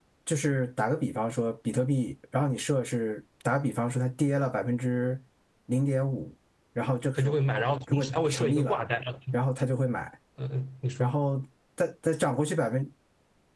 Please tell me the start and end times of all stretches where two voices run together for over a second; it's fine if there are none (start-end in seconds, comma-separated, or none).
7.2-8.8